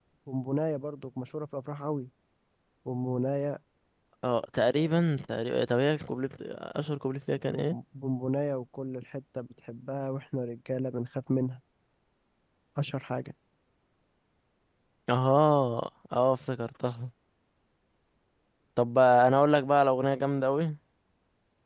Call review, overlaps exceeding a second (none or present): none